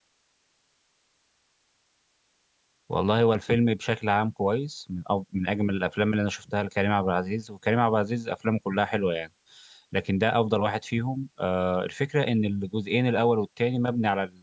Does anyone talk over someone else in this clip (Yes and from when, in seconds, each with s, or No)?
No